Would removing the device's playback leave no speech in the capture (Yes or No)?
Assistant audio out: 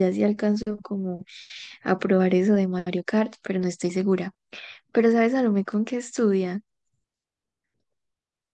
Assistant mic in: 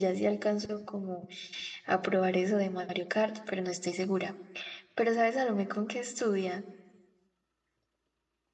Yes